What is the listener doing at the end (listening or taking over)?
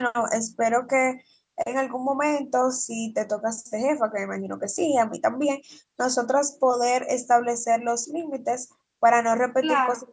taking over